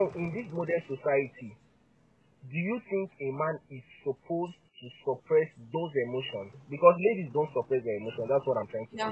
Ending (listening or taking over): taking over